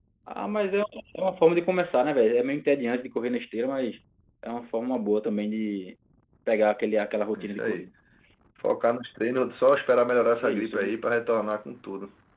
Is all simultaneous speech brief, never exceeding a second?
Yes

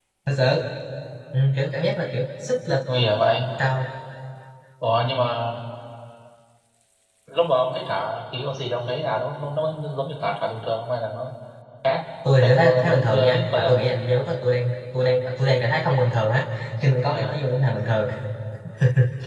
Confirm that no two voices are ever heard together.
No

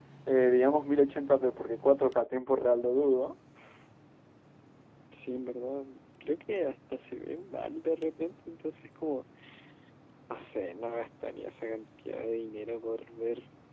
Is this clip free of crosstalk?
Yes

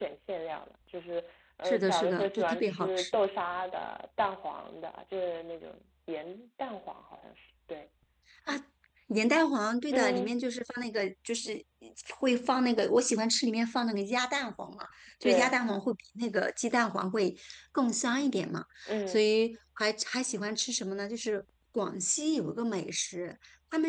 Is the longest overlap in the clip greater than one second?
Yes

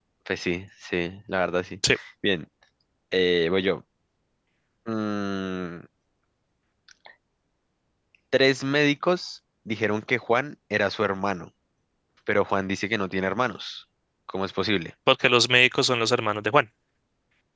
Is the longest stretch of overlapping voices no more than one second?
Yes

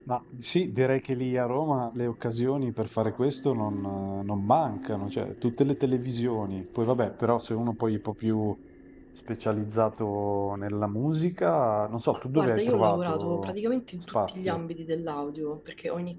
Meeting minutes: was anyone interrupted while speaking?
Yes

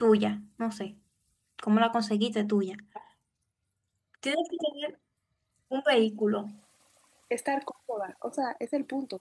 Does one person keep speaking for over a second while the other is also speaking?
No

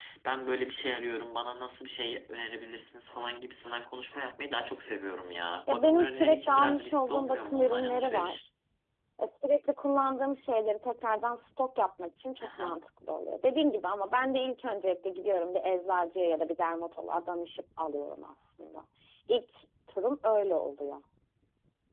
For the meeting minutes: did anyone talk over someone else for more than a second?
Yes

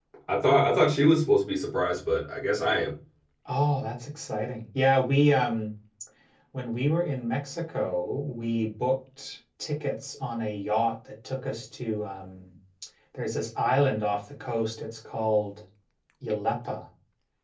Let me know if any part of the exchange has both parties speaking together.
No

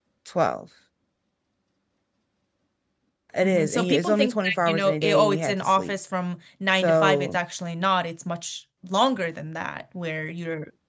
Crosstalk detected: Yes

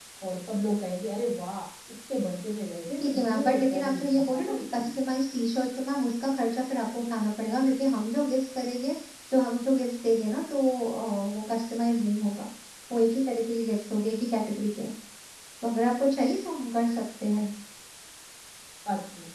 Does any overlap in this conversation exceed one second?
Yes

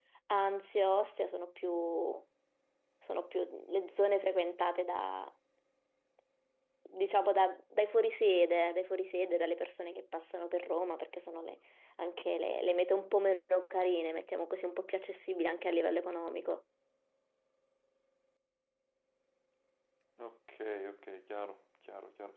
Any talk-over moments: No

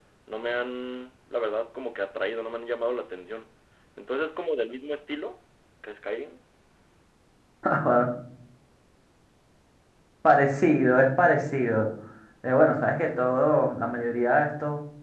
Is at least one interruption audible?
No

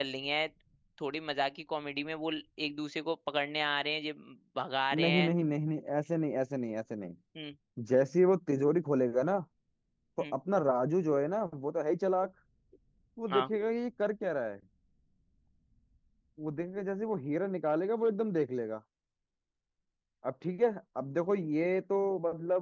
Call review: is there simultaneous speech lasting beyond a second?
No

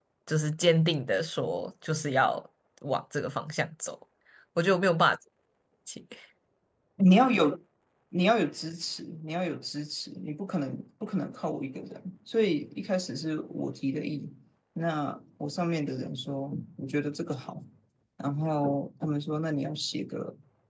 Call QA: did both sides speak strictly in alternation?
Yes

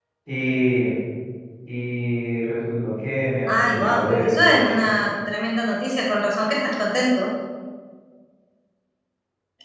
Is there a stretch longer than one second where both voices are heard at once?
Yes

